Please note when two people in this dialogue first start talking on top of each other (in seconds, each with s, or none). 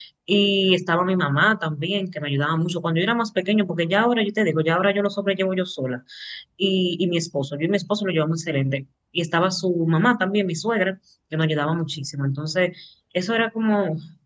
none